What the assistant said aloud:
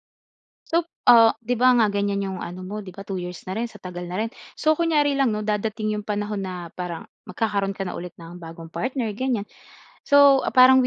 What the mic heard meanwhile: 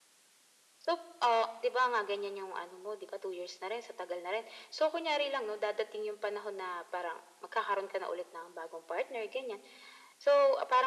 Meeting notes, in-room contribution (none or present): none